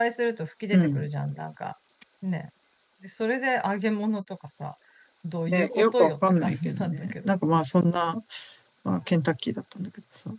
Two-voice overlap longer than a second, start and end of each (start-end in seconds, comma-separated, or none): 5.5-7.3